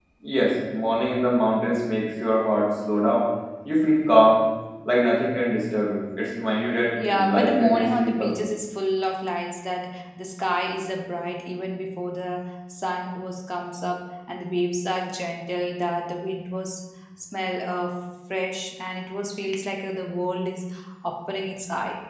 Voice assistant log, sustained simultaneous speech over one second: present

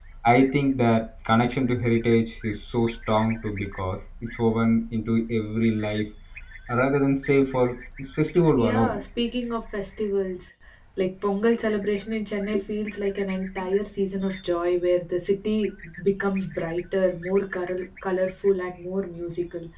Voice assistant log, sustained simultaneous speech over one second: none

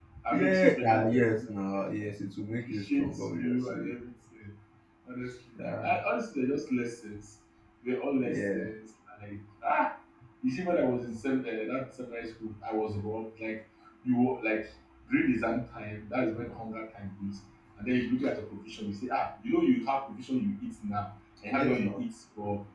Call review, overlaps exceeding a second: present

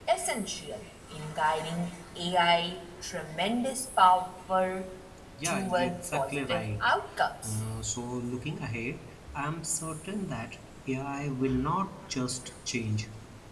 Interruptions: present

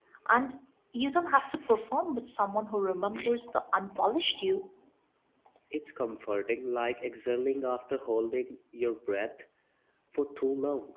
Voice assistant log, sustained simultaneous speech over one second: none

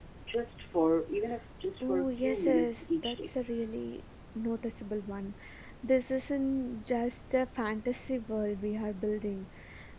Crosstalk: present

